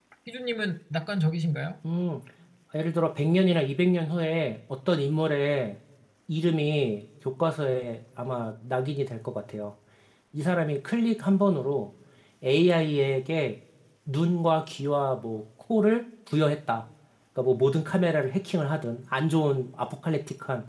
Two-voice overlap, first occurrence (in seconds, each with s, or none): none